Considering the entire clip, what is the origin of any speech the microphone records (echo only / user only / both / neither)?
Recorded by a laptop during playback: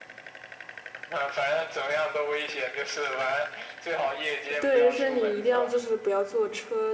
both